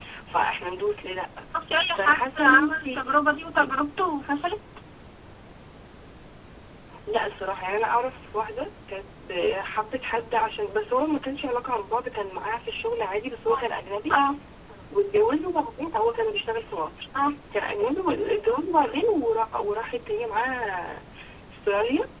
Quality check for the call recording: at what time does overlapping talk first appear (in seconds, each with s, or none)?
1.9 s